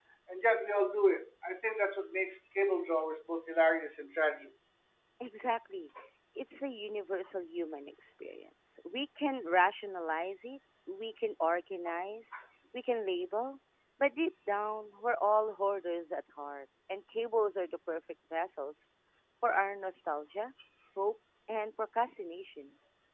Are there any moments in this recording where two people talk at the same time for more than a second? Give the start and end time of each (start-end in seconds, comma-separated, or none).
none